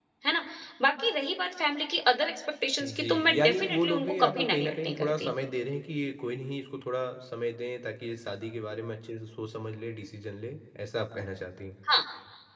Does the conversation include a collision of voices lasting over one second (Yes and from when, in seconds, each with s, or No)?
Yes, from 2.8 s